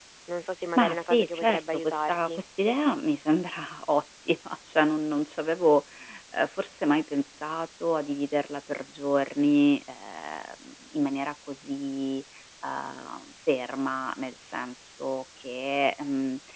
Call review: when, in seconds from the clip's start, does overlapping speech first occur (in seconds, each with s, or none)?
0.8 s